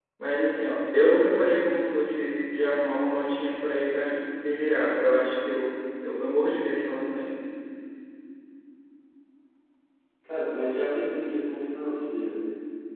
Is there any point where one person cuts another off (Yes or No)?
No